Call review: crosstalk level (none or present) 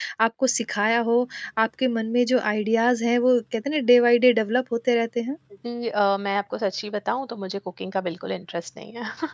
none